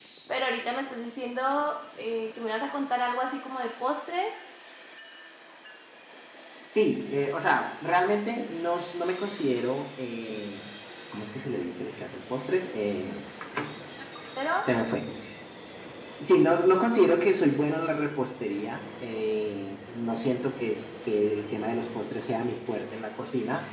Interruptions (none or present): none